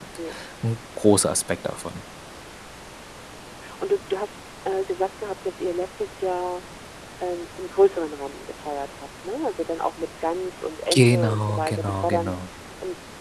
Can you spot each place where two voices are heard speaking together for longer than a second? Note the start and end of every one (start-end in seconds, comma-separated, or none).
10.9-12.3